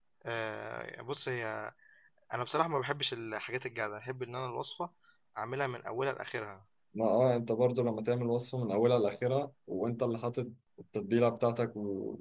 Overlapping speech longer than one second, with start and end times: none

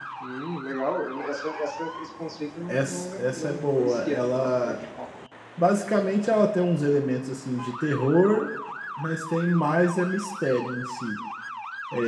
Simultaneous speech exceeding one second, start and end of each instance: 2.7-4.8

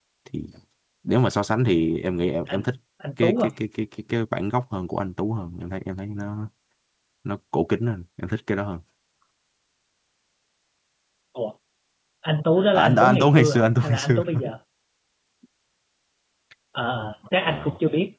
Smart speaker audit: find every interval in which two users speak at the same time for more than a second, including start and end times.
12.8-14.2

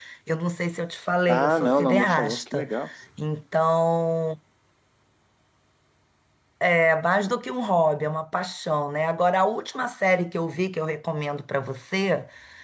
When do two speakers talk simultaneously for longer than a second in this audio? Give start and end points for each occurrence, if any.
1.3-2.7

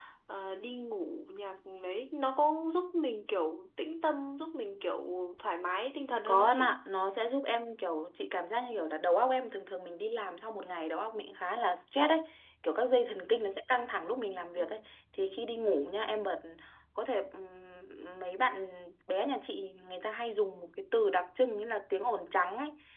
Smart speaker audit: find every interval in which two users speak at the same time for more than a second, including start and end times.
none

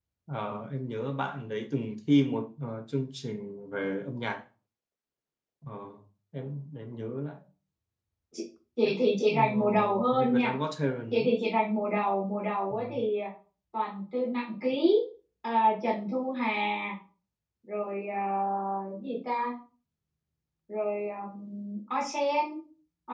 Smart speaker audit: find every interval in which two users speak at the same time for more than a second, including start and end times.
8.8-10.5

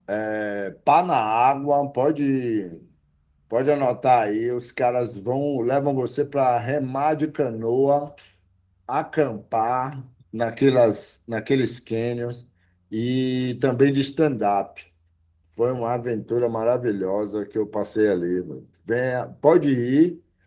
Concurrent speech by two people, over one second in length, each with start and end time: none

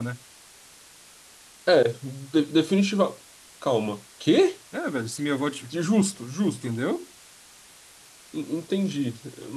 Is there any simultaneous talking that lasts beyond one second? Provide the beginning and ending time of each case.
none

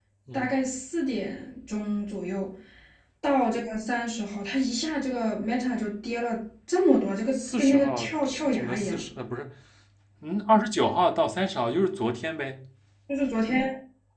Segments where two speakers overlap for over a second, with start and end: 7.3-9.0

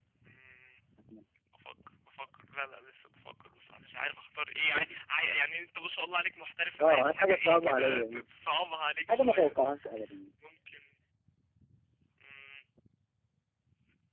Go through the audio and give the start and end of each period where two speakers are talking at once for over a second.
6.8-8.3

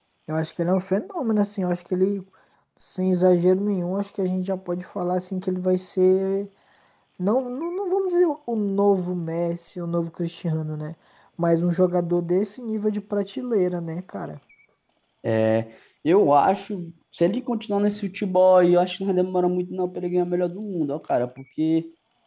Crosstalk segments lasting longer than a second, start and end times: none

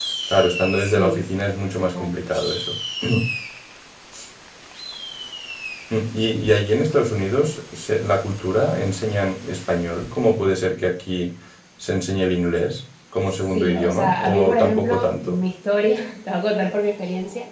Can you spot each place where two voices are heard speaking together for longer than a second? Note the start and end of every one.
13.5-15.4

